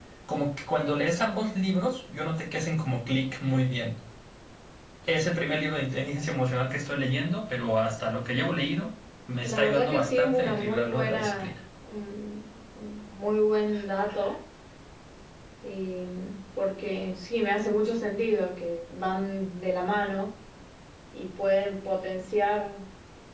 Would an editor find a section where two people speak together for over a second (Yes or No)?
Yes